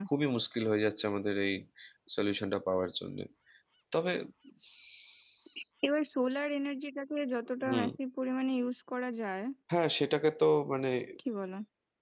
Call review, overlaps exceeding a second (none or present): none